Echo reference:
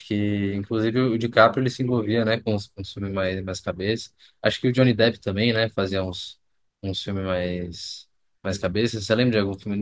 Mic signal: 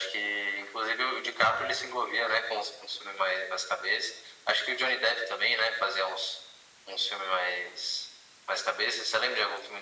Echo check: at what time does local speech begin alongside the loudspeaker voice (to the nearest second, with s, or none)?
none